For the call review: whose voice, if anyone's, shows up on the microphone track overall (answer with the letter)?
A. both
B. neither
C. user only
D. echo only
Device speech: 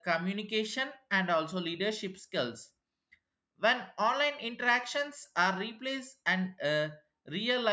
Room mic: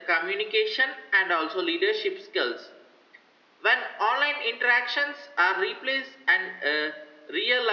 D